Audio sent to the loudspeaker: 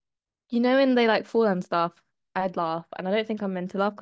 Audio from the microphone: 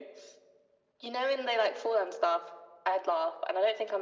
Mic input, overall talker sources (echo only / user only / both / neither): echo only